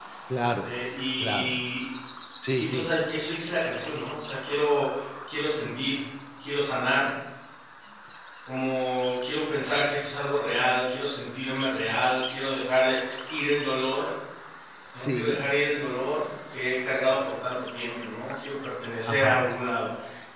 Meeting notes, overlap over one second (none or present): none